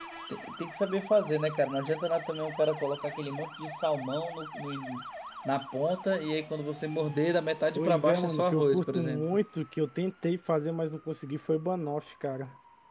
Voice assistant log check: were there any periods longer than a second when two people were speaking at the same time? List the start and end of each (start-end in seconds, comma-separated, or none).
7.8-9.4